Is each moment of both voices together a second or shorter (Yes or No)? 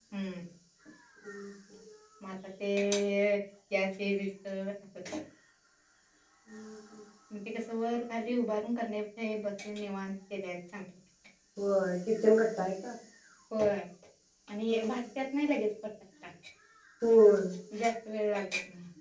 Yes